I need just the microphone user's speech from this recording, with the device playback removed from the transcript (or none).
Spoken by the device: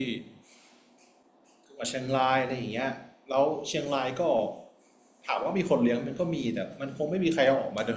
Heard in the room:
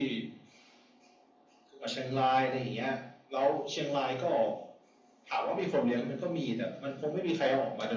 none